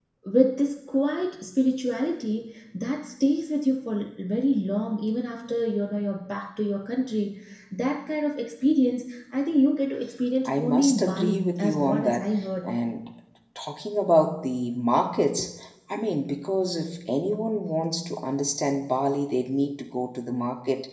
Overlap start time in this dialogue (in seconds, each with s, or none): 10.4 s